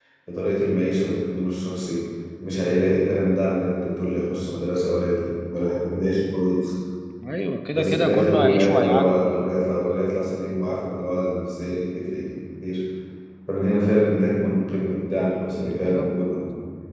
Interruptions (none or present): present